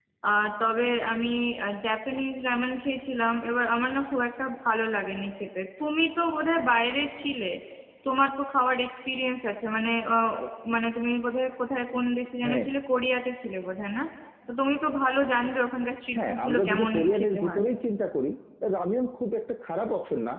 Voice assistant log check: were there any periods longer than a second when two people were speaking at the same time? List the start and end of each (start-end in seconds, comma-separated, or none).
16.2-17.6